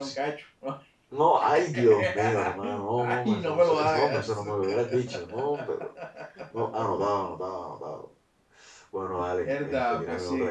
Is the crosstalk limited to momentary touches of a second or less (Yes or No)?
No